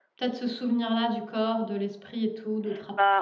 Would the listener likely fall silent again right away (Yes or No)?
No